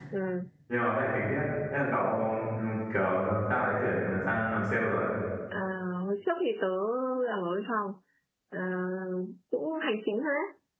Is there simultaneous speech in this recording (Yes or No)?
No